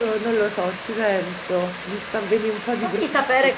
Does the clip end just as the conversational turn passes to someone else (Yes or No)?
Yes